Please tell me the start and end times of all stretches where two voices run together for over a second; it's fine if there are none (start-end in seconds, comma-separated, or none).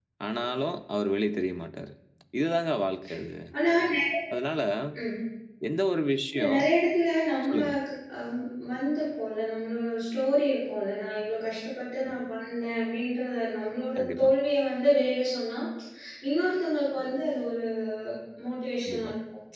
none